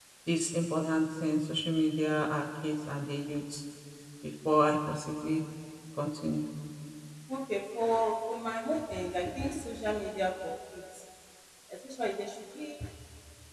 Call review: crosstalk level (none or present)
none